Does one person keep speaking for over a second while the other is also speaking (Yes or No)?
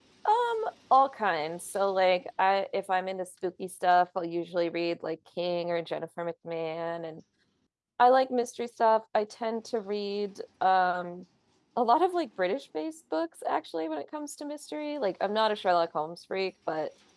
No